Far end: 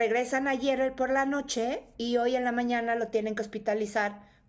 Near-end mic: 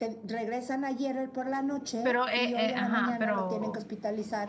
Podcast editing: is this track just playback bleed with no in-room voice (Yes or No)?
No